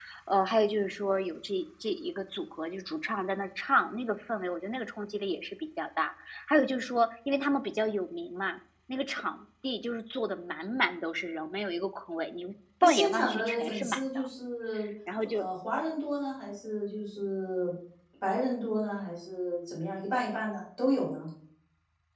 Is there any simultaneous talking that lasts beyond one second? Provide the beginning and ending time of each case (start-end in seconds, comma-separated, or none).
12.8-14.2